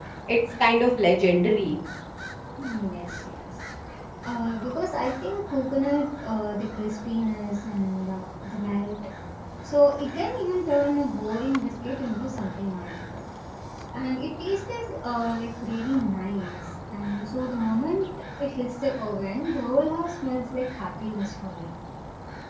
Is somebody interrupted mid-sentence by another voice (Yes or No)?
No